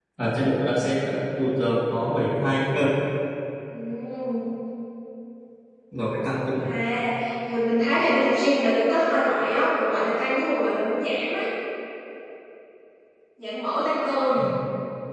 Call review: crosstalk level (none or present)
none